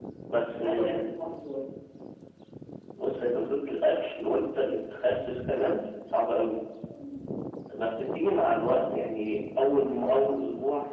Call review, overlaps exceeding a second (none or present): none